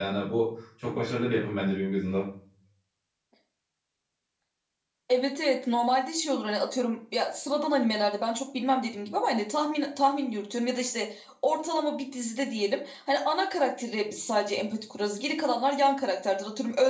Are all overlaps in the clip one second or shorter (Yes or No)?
Yes